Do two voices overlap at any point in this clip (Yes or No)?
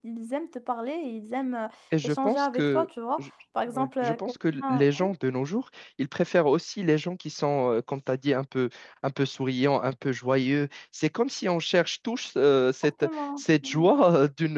Yes